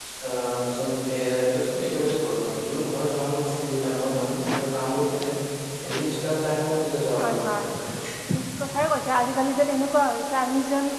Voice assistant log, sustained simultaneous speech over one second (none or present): none